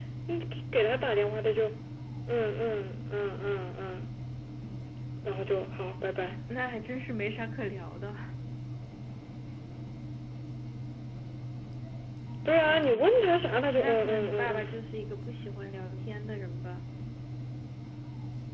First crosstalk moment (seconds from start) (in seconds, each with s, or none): 12.6 s